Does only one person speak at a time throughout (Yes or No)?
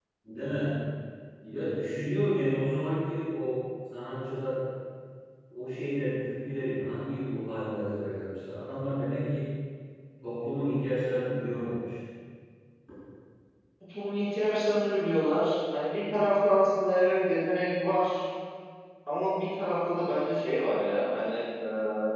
Yes